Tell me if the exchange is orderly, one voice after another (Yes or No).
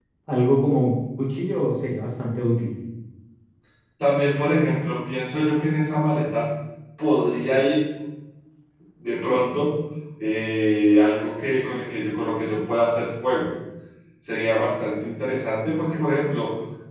Yes